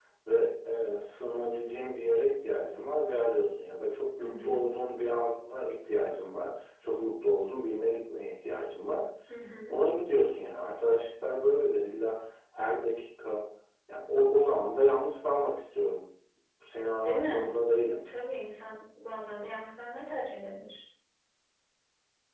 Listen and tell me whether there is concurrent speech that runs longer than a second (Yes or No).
No